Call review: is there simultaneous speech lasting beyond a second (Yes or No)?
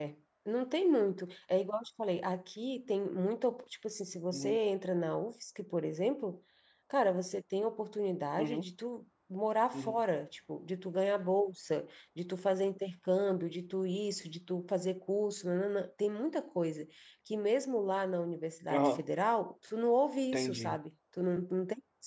No